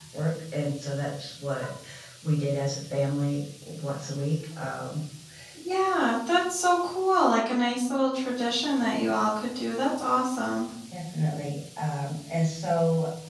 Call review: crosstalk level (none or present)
none